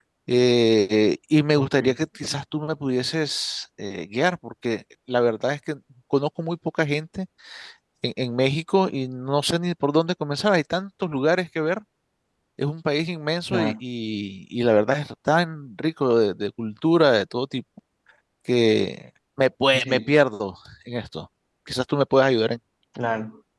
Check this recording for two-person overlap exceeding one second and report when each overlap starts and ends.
none

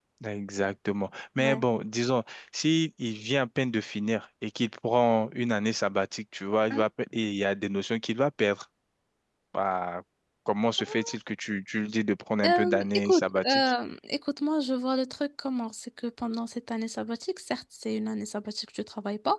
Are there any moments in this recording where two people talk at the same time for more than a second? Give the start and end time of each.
12.4-13.7

